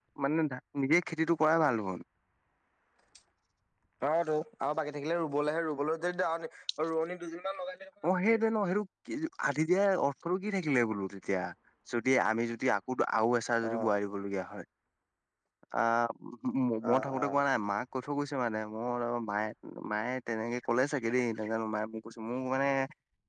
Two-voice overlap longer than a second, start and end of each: none

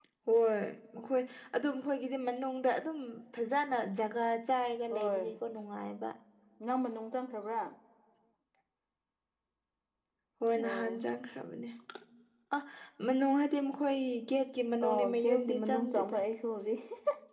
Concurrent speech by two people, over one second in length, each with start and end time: 14.9-16.2

